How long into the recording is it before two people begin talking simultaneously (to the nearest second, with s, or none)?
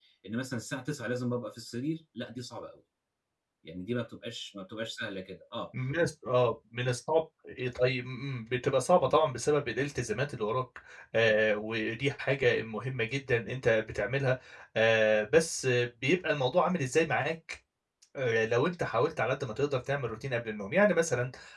none